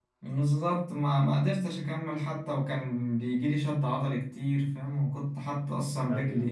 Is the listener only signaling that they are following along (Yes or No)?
Yes